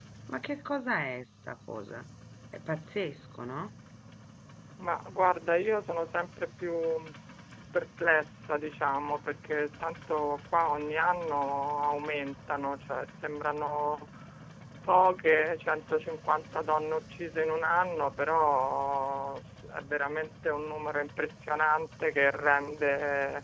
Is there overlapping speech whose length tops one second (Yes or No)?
No